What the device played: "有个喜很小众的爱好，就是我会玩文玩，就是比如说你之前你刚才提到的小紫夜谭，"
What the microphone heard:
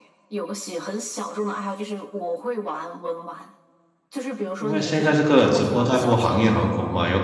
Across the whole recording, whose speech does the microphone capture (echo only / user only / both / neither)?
both